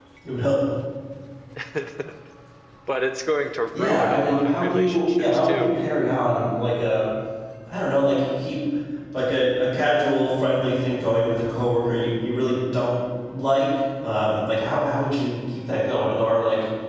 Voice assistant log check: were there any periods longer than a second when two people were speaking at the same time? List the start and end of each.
3.7-5.7

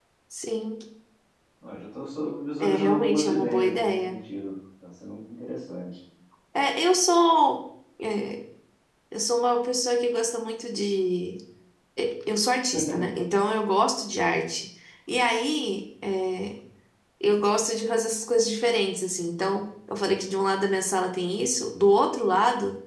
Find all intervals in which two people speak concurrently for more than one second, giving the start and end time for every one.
2.6-4.2

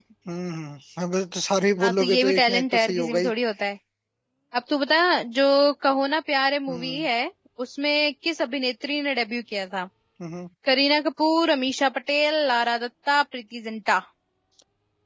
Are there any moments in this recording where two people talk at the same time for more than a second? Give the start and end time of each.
1.8-3.3

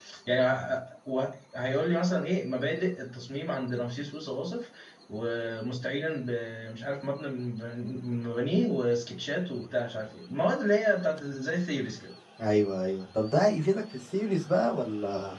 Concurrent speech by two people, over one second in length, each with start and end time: none

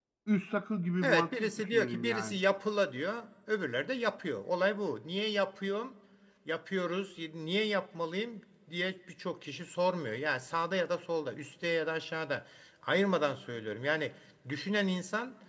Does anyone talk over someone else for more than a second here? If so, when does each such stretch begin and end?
1.0-2.4

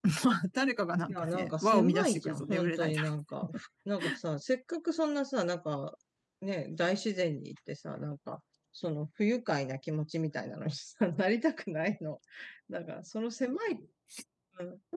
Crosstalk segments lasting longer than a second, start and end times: 1.1-3.0

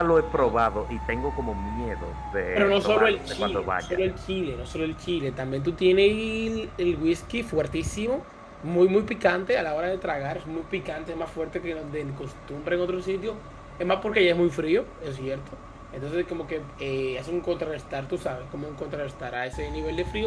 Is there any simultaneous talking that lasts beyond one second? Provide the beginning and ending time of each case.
2.6-4.0

